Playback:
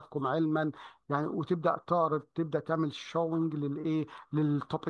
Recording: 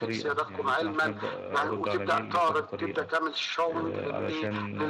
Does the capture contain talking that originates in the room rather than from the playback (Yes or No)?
Yes